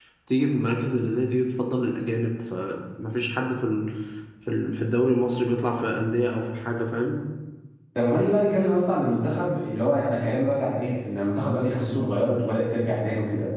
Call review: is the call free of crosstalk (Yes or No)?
Yes